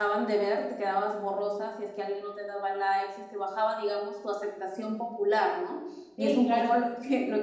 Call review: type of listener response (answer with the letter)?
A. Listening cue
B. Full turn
A